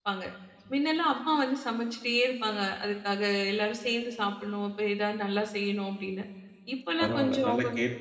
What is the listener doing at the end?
taking over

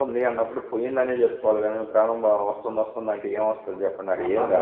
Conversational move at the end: taking over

